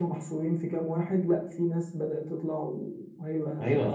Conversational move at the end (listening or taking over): taking over